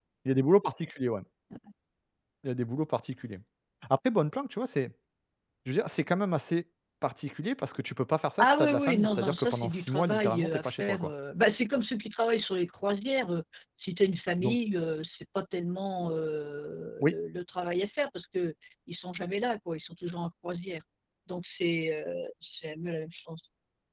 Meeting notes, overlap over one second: present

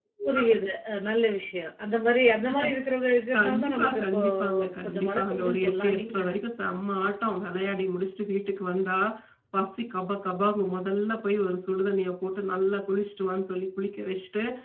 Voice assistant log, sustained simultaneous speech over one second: present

